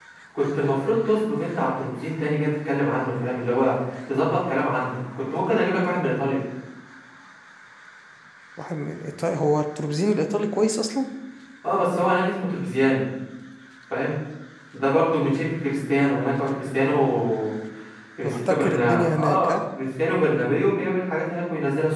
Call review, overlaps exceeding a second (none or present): present